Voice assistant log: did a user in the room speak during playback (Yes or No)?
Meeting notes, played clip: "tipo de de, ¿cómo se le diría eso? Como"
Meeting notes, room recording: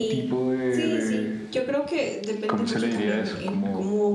Yes